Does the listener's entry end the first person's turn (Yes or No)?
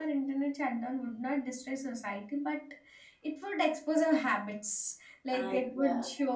No